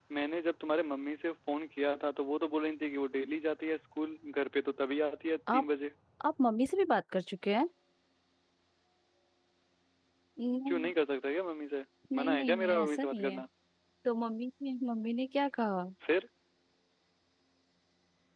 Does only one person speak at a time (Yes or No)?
No